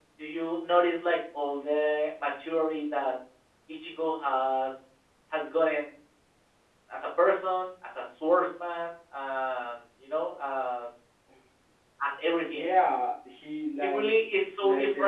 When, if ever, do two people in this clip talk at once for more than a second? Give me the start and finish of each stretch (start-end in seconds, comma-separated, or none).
none